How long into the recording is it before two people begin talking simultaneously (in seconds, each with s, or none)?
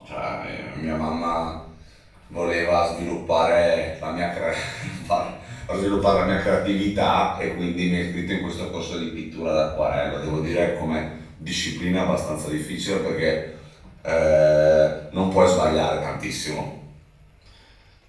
none